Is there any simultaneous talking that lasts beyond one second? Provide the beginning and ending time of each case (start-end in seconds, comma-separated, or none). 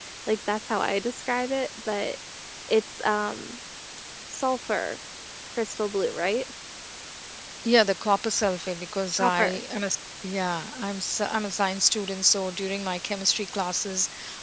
none